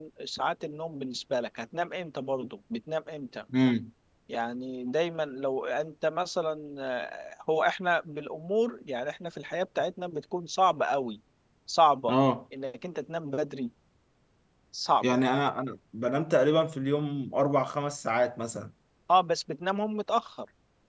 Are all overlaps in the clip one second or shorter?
Yes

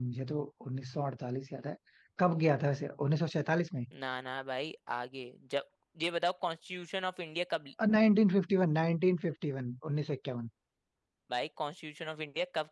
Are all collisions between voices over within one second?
Yes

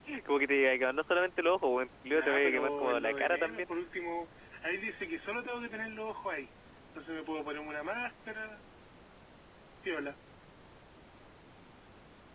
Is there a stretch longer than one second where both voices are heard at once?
Yes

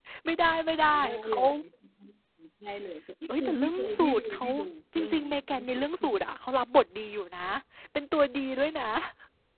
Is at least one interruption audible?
Yes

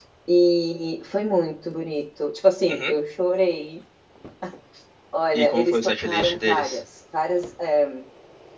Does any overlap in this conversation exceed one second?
Yes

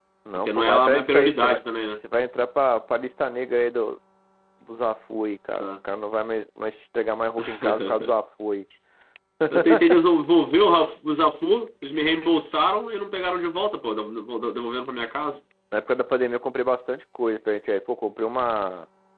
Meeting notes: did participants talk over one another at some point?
Yes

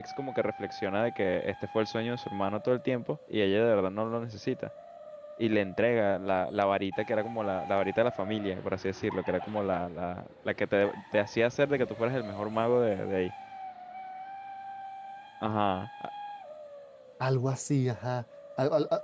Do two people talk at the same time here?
No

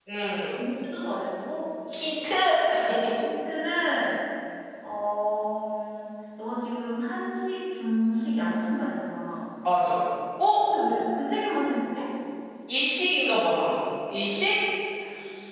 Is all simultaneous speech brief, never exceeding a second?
Yes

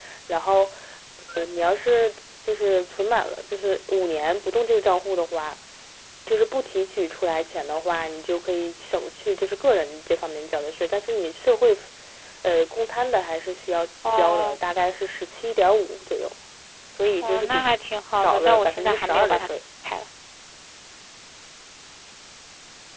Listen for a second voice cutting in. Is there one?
Yes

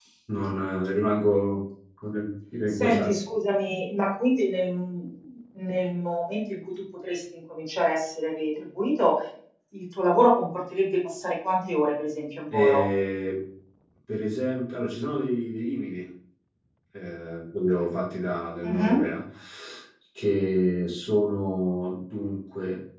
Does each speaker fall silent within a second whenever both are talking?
Yes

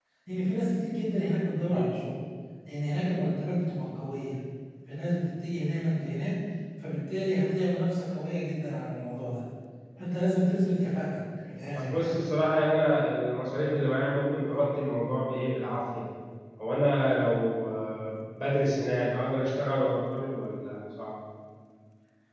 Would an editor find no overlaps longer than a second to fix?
Yes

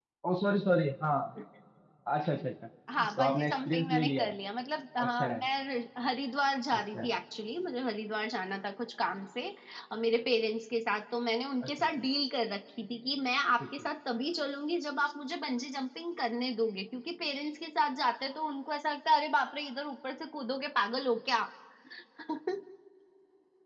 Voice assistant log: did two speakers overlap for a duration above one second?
Yes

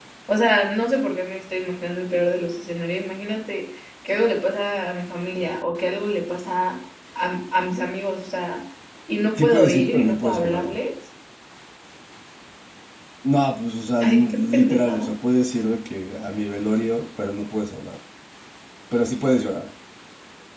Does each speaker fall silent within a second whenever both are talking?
No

